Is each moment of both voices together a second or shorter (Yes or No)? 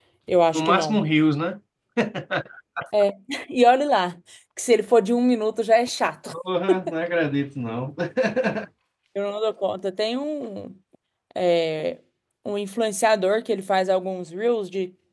Yes